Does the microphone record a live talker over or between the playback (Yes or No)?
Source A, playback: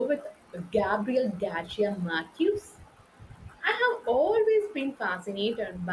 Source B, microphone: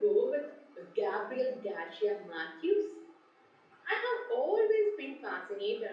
No